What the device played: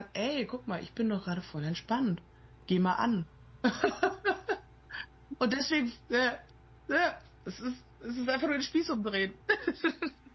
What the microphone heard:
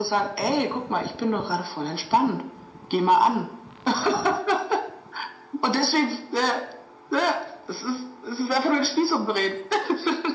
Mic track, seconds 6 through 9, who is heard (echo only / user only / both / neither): echo only